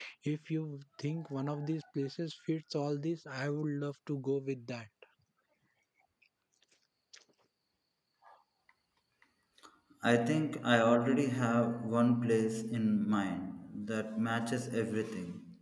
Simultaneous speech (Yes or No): No